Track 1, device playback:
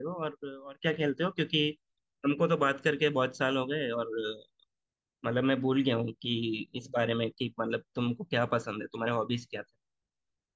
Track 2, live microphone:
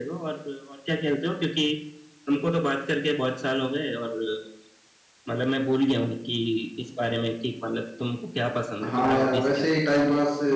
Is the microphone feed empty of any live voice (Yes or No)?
No